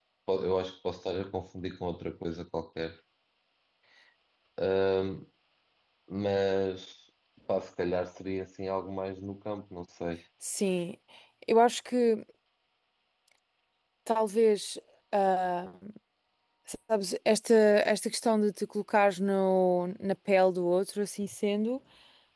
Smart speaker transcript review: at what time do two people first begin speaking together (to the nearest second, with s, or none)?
none